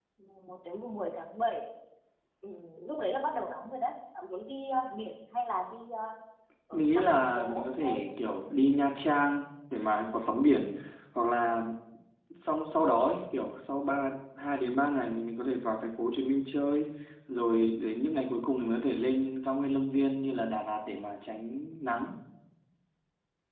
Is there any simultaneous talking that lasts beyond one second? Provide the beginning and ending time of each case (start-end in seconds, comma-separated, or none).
6.7-8.0